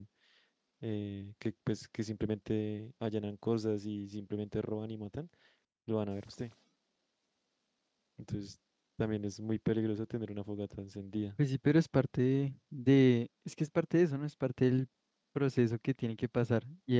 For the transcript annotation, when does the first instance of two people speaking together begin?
none

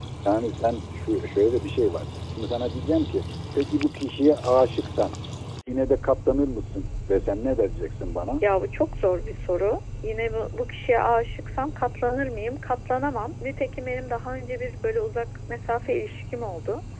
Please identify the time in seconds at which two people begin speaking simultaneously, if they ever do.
none

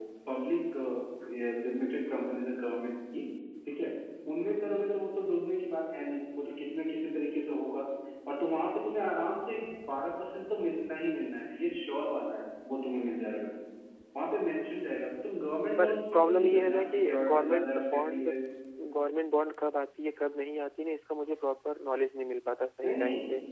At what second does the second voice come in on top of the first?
16 s

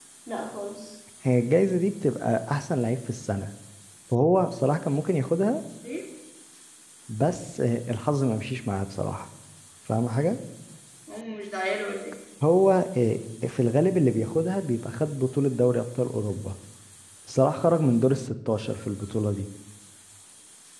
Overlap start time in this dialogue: none

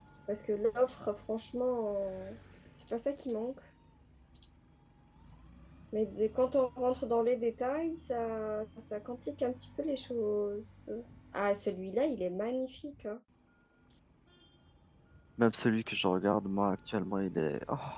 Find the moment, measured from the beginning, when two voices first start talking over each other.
none

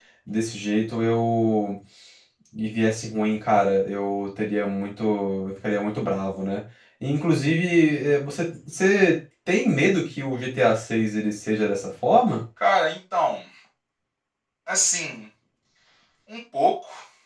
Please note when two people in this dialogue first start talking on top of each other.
none

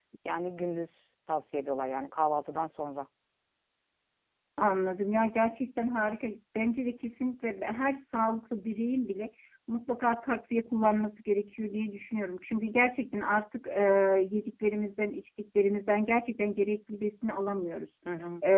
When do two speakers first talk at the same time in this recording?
none

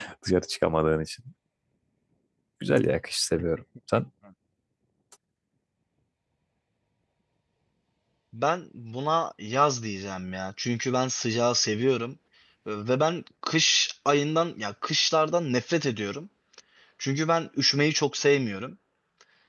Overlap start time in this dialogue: none

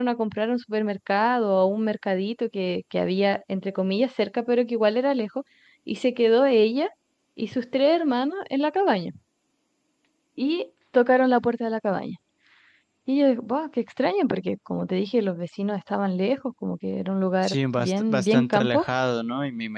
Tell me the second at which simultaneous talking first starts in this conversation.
17 s

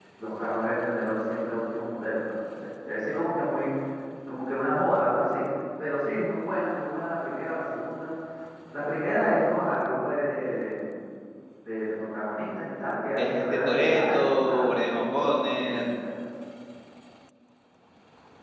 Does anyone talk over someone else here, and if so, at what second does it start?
13 s

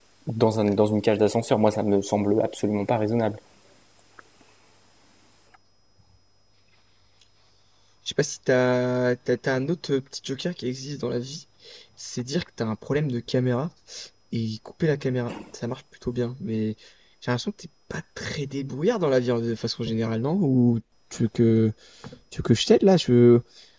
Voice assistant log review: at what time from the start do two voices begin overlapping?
none

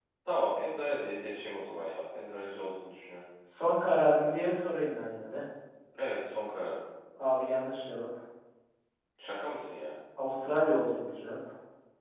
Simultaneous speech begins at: none

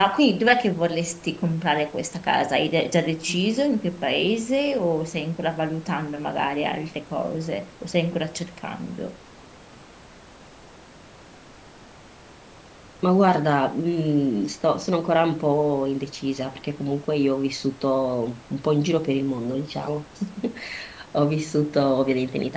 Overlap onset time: none

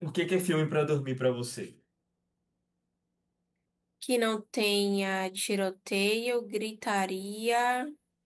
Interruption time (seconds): none

